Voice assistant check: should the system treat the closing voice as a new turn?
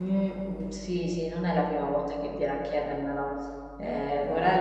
No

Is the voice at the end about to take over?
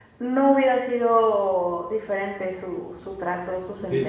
Yes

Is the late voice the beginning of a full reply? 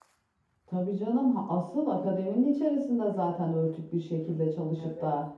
No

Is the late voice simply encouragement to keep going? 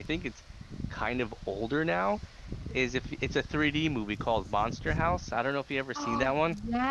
No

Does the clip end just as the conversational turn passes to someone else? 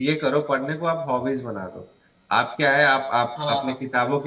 No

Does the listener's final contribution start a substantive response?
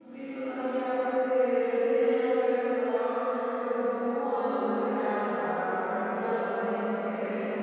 No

